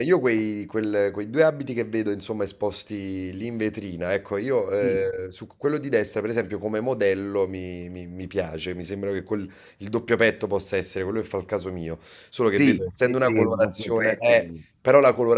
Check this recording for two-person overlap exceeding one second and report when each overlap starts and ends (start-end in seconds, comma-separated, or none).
12.6-14.4